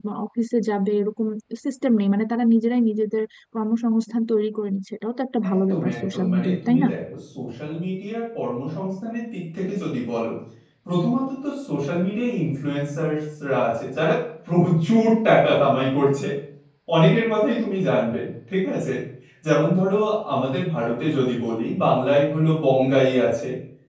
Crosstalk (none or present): present